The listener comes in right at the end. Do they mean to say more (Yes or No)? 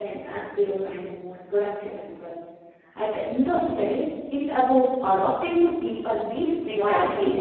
Yes